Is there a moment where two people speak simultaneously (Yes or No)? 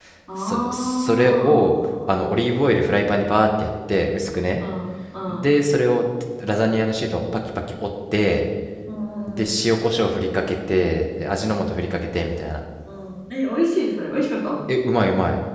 Yes